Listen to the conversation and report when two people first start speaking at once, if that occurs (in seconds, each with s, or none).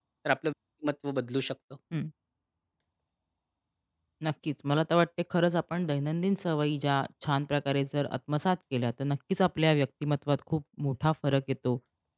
none